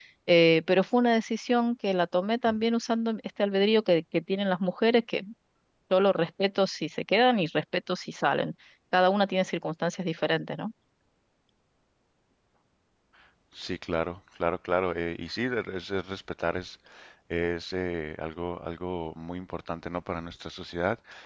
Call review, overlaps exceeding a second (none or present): none